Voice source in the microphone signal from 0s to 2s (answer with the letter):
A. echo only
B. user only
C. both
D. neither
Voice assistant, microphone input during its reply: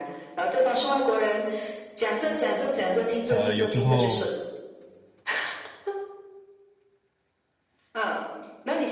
A